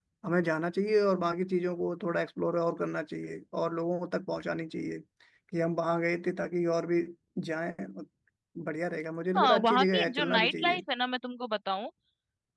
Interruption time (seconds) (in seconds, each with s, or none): 9.4 s